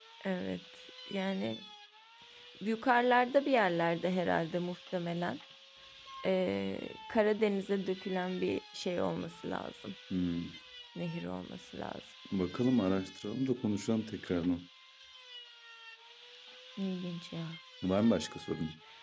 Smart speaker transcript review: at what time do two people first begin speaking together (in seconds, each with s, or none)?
none